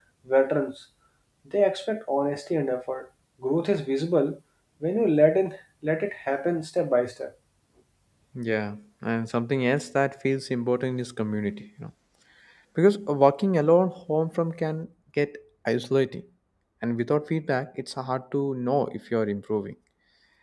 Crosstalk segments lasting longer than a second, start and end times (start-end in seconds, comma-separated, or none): none